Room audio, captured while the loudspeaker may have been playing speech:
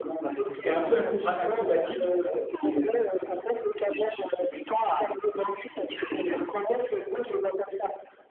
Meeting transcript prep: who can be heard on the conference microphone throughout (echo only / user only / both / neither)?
both